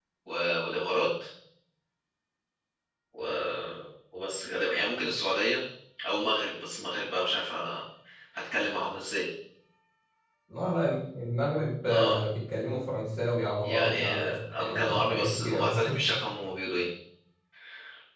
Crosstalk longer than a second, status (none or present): present